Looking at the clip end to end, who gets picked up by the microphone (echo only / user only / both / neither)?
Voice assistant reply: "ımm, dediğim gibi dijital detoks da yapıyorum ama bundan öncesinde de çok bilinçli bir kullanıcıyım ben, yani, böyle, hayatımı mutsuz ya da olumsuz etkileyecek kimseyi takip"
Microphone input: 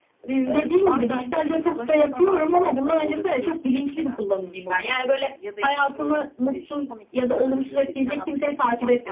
both